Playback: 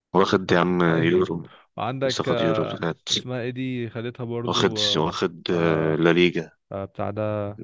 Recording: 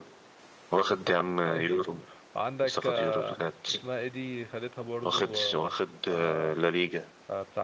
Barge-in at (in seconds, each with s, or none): none